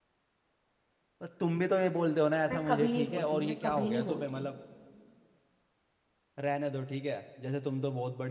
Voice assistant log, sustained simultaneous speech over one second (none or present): present